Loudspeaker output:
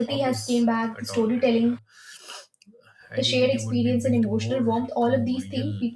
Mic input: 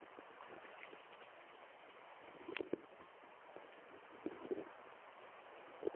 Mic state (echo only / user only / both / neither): neither